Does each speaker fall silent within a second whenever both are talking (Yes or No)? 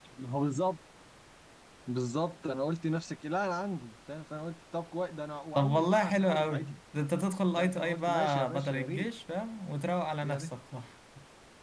No